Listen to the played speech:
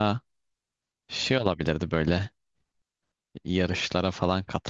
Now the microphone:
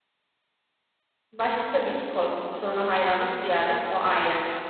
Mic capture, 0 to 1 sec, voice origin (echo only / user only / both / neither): neither